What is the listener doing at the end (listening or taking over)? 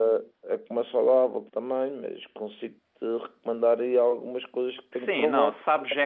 taking over